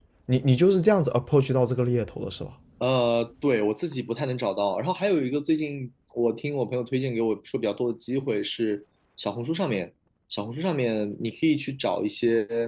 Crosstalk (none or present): none